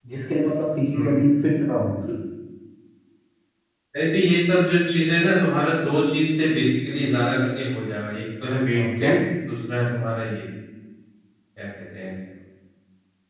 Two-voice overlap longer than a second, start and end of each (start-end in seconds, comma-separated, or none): none